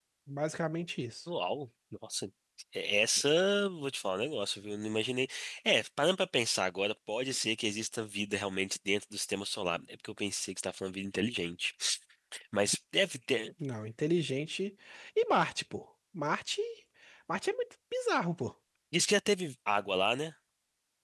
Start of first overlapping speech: none

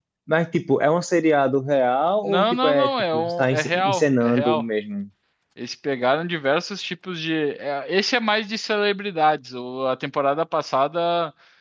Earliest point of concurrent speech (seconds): 2 s

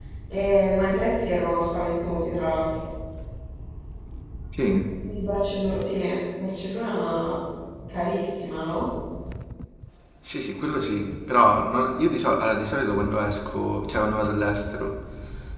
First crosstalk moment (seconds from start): none

